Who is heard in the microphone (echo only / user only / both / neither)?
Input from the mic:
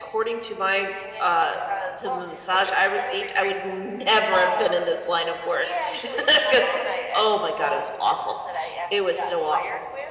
both